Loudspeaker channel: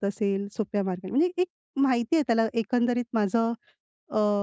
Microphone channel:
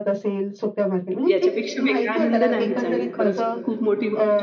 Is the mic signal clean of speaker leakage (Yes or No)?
No